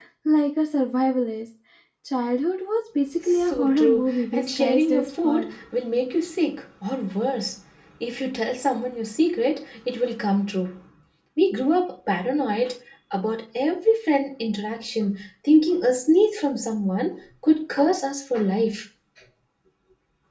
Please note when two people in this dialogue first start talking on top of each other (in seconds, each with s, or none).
3.5 s